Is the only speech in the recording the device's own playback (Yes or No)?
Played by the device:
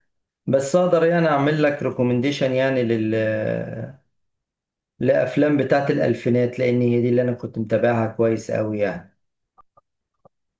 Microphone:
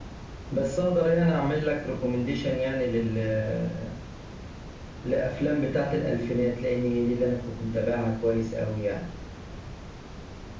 Yes